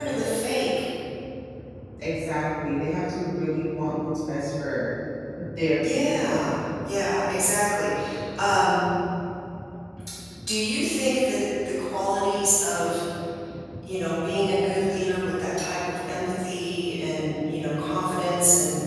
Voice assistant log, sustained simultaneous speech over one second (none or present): none